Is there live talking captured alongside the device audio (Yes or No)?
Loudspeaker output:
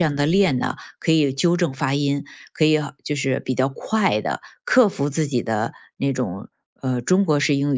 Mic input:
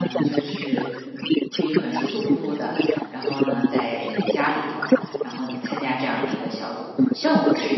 Yes